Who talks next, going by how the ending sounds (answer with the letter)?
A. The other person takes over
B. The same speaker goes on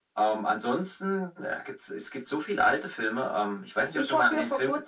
A